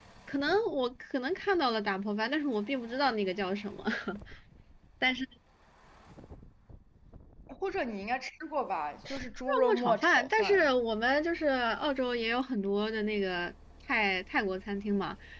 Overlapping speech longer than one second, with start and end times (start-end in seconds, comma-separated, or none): 9.5-10.7